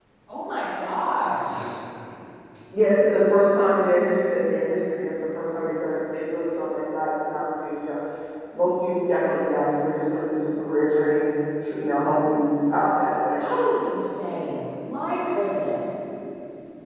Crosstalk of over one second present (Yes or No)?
No